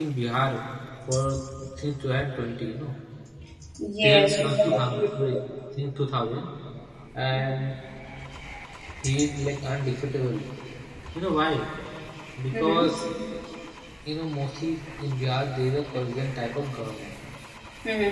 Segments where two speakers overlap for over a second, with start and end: 4.0-5.4

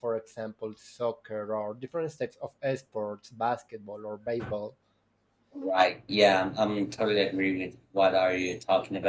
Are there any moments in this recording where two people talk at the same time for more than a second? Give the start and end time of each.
none

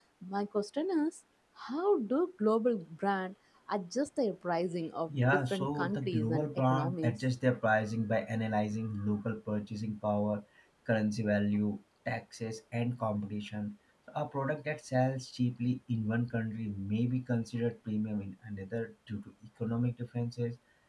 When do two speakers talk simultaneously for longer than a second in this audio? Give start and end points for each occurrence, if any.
5.1-7.1

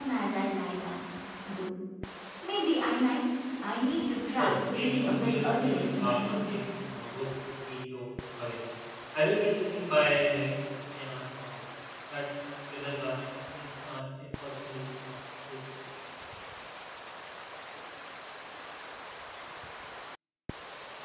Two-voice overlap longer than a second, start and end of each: 4.4-6.6

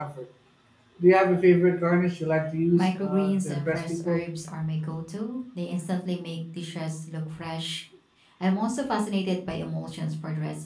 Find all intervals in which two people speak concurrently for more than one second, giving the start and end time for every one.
2.8-4.2

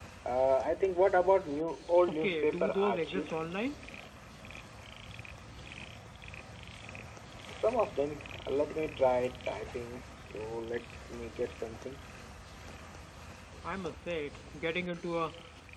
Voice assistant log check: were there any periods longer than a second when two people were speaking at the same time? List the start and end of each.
2.2-3.4

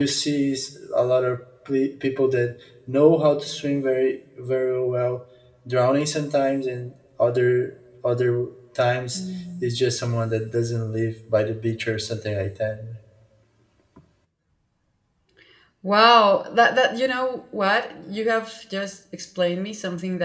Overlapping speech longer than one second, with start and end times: none

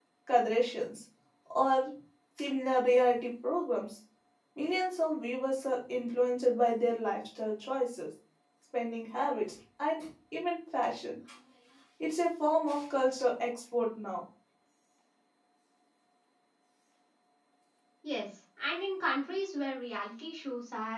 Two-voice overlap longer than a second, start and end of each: none

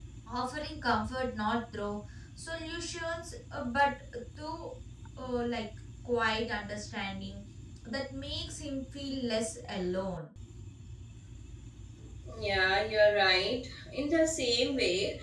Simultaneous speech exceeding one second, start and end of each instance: none

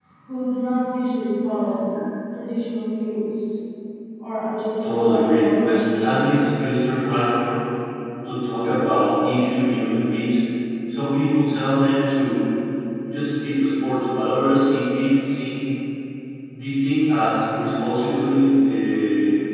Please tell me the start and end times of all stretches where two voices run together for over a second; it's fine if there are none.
4.8-6.4

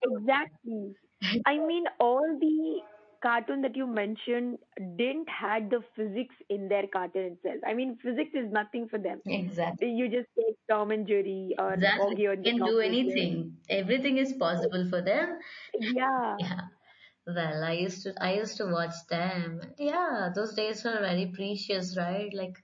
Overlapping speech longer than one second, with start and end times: 11.7-13.3

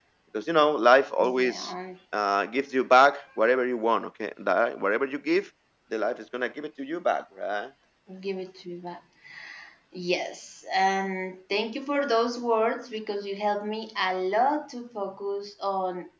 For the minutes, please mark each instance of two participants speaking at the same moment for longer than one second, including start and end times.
none

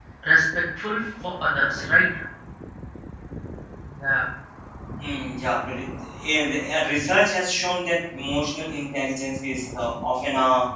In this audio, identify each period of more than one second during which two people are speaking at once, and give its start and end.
none

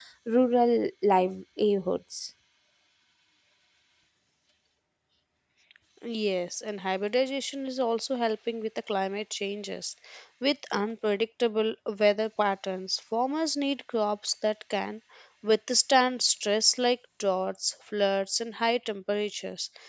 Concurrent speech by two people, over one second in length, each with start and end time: none

